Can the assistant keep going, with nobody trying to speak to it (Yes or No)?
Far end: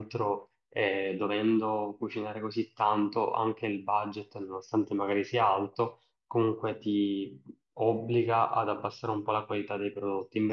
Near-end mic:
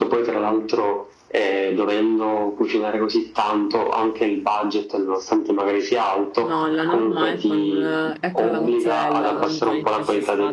No